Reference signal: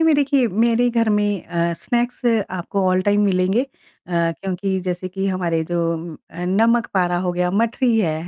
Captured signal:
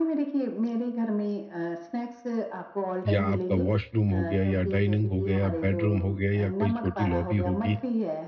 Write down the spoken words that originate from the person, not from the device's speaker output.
या आपका वॉशरूम हो गया या डाइनिंग हो गया, या बेडरूम हो गया या कोई छोटी लॉबी होगी,

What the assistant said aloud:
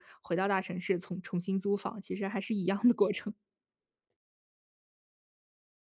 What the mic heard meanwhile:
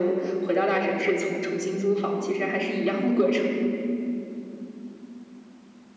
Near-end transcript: none

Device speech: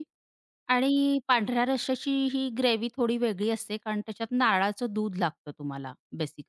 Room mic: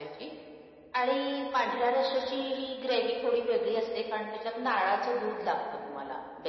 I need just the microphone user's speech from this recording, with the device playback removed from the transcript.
none

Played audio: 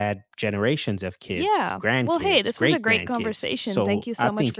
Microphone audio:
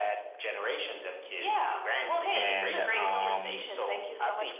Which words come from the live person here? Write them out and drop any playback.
and um

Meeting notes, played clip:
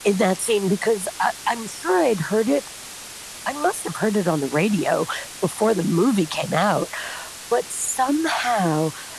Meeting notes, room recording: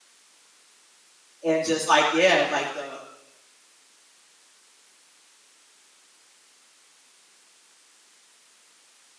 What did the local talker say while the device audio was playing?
and just, like yeah, like, the

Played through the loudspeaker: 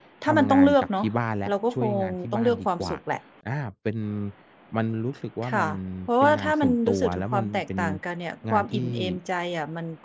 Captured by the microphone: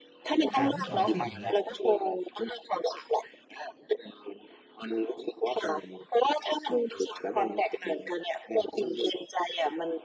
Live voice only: แต่ทั้งสองสิ่งเนี้ย

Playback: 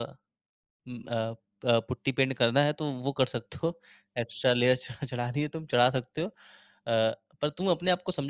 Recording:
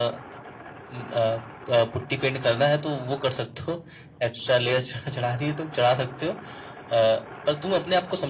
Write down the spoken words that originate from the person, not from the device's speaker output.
none

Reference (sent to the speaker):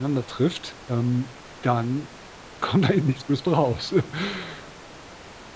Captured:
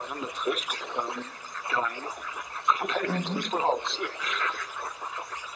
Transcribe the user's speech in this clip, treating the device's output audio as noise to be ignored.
Mhm.

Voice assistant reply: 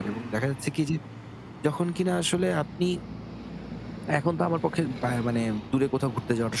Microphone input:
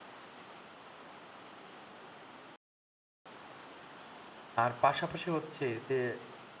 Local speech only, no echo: আর পাশাপাশি হচ্ছে যে,

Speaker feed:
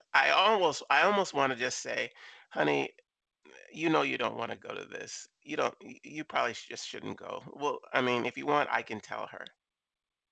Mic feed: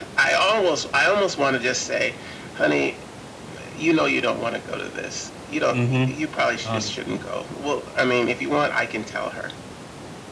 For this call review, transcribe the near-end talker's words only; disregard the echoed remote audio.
Mhm. 100%.

